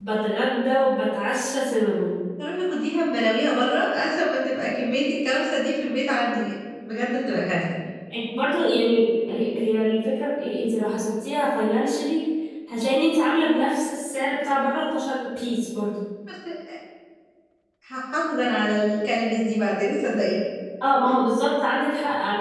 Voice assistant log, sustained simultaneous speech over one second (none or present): none